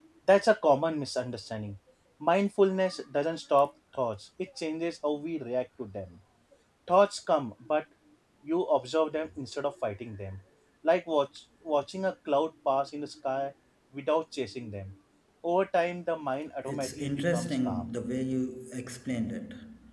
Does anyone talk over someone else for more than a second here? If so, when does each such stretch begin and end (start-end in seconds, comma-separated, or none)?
16.6-17.9